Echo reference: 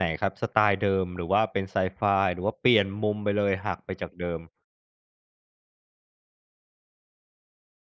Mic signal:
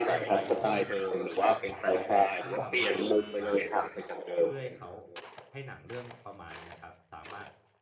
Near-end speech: present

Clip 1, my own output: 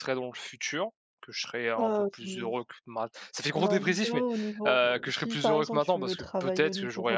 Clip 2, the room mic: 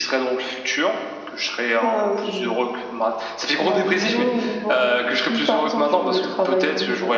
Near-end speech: none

